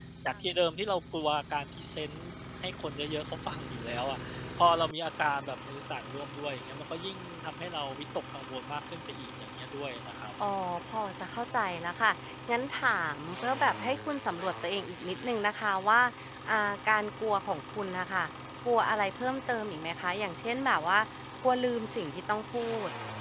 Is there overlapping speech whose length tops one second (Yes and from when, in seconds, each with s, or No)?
No